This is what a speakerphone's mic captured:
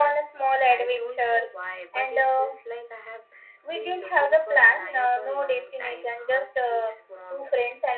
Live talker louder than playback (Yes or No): No